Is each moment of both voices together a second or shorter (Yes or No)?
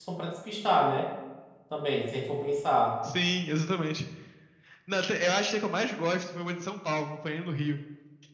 Yes